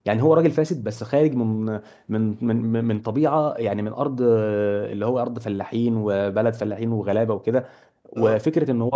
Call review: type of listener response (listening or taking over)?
listening